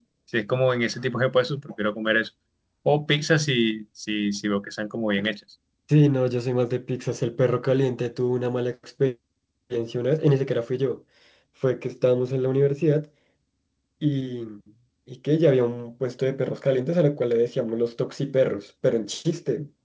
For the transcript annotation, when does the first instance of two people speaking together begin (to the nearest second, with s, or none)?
none